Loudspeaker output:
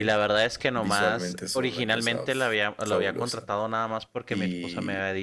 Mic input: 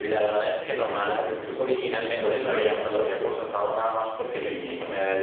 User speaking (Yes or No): Yes